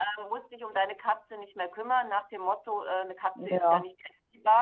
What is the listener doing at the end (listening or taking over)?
listening